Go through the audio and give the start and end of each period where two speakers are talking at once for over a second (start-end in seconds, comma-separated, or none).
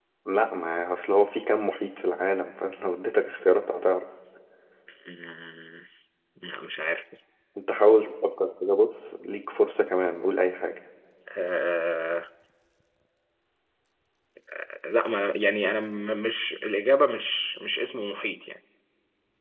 none